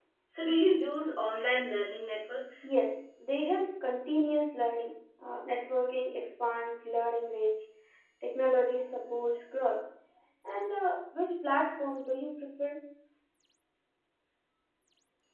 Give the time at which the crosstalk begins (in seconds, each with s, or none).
none